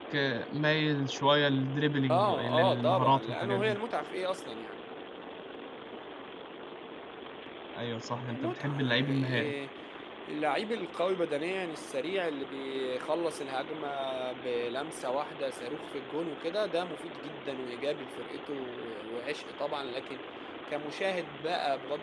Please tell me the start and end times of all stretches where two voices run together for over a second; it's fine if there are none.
2.1-3.8, 8.3-9.5

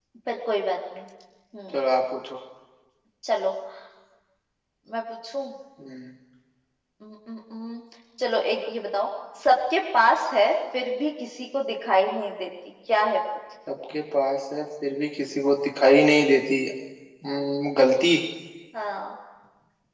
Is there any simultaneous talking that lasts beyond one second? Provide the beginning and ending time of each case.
none

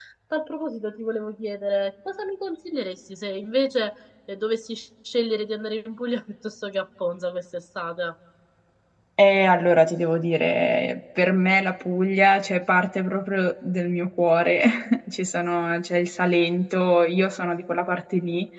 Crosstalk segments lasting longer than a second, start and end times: none

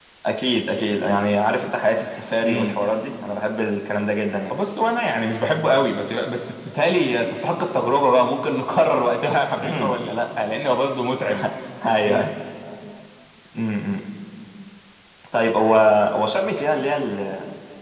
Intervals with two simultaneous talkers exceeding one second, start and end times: none

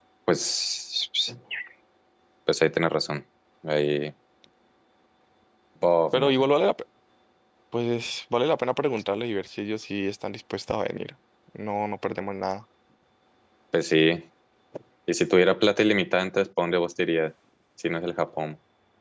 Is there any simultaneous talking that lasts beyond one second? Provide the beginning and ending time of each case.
none

